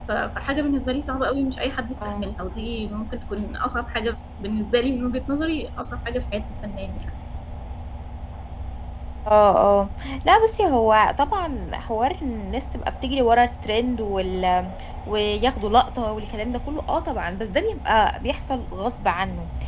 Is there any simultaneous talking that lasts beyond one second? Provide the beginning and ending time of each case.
none

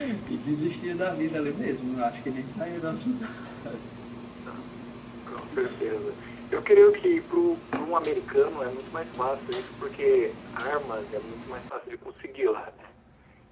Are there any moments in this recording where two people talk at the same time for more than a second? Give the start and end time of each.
none

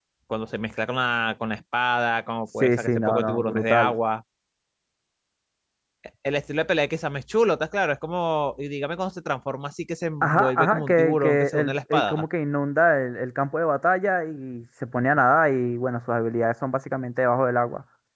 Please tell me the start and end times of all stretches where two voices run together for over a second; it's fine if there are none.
2.6-4.0, 10.2-12.2

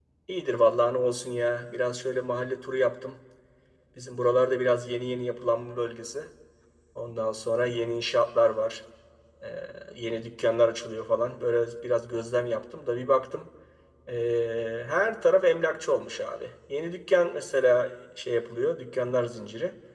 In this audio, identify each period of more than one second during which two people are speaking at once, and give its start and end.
none

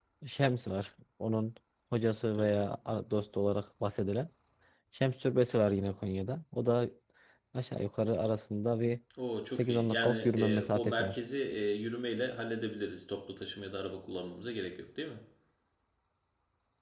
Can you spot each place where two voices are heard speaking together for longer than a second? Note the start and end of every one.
9.5-11.2

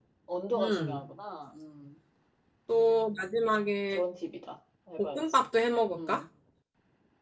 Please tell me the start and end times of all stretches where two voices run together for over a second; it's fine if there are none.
none

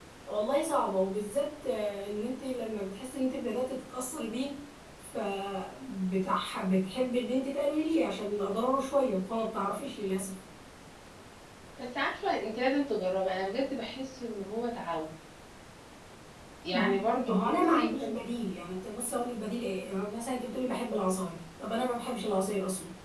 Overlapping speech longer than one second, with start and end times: 16.7-18.1

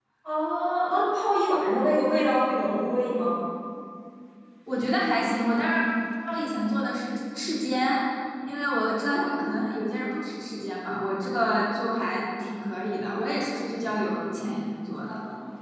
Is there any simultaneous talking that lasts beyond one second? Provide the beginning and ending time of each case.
none

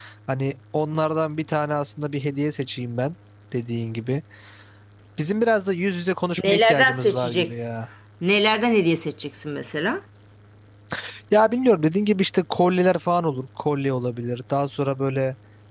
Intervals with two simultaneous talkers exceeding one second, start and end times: 6.5-7.7

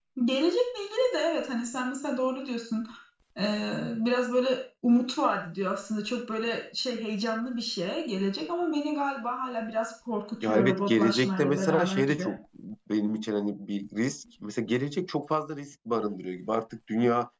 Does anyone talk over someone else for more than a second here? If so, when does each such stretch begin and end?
10.4-12.3

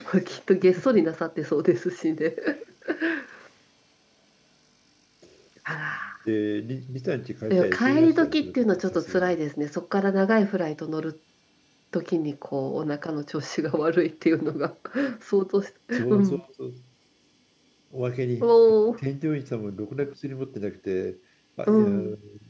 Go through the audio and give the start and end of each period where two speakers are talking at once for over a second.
7.5-9.3

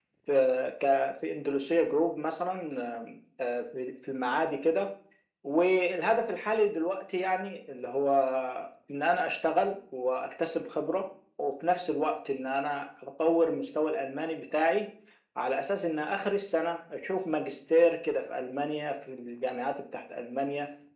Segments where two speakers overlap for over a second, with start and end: none

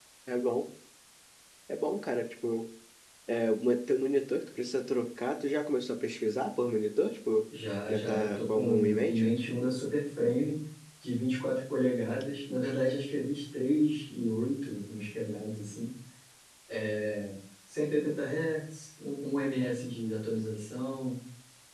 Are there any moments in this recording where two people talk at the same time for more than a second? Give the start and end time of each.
7.9-9.2

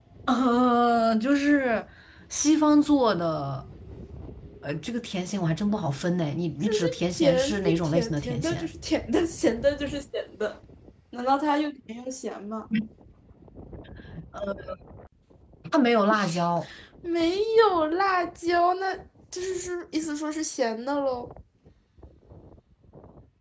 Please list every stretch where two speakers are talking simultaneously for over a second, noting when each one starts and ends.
6.7-8.7

